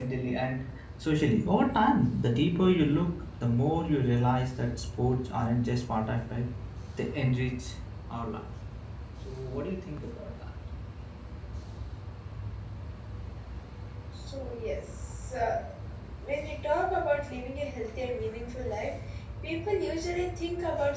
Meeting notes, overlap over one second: none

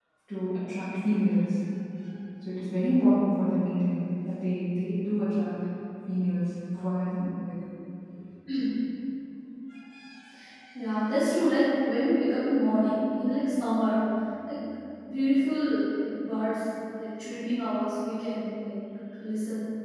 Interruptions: none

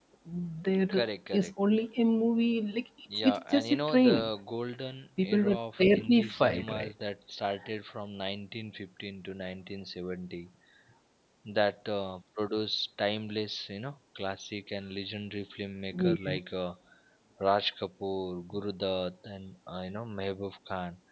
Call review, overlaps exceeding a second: present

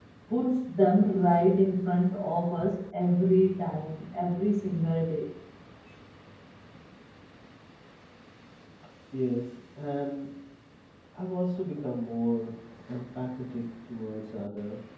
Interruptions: none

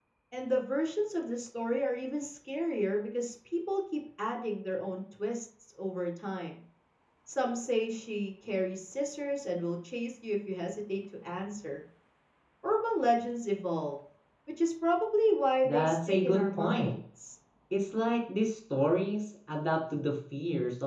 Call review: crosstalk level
present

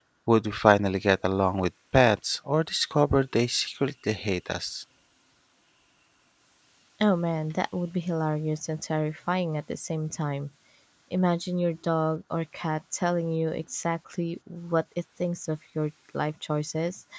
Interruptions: none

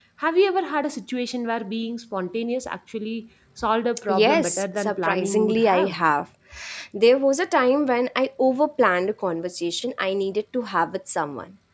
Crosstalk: present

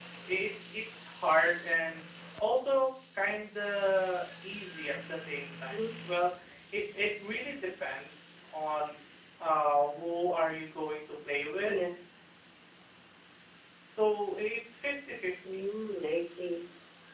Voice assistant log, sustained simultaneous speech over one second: none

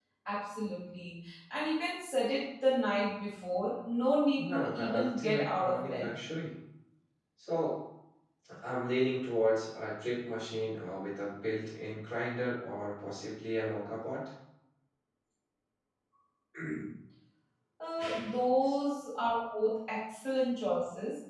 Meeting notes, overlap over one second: present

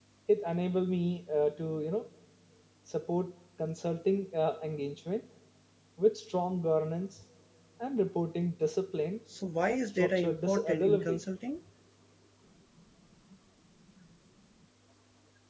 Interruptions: present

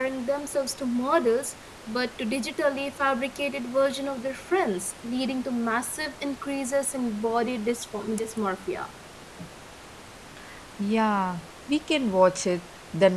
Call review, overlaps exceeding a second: none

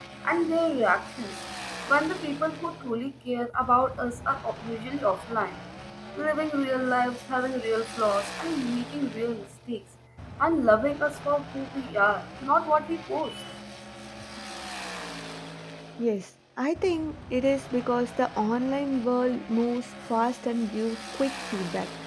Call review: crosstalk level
none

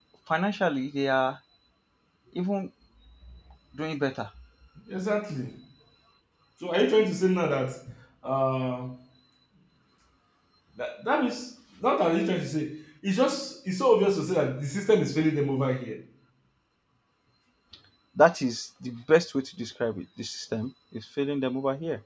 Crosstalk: none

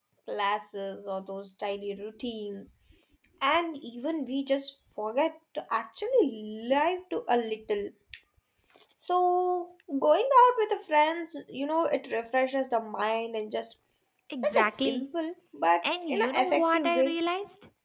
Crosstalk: present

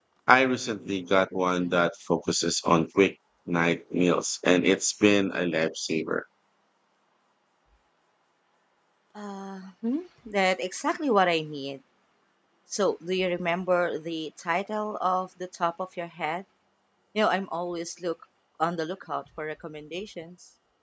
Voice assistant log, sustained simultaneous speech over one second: none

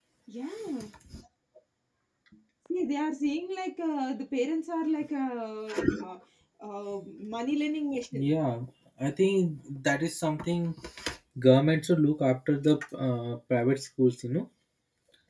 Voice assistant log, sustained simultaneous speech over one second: none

